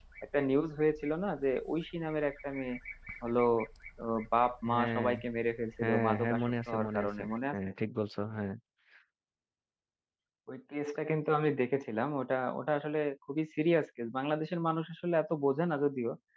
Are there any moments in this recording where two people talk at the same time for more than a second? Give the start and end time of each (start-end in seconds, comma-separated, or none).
5.8-7.6